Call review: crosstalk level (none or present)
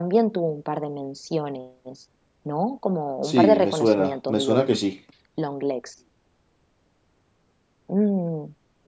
present